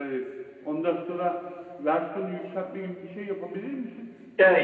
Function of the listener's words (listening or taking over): listening